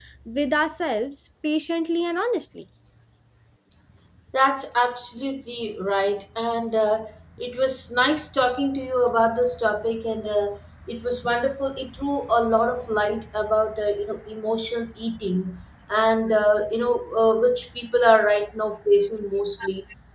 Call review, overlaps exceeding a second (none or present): none